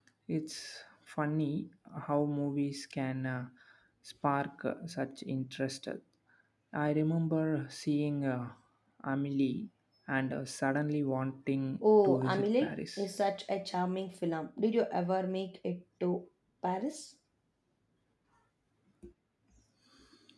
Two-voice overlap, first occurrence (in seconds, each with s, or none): 11.8 s